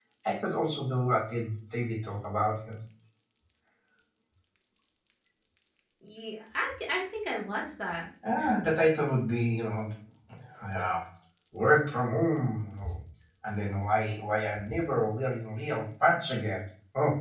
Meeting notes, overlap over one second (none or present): none